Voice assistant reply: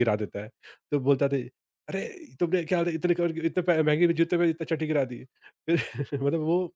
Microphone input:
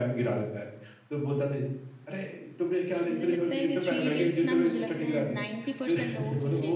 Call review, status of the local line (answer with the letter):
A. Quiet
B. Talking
B